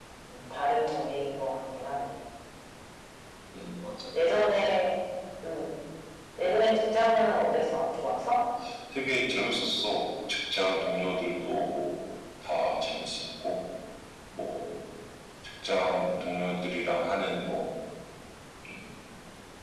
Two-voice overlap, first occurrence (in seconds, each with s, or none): none